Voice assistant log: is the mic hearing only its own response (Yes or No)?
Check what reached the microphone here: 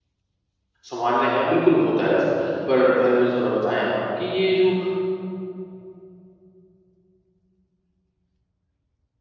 No